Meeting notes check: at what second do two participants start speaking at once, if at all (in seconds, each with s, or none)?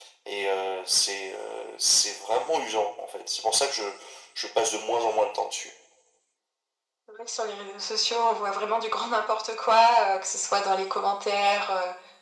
none